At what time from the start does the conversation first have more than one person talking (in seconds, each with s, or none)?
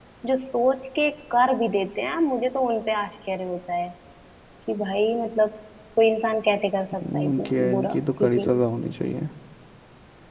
7.0 s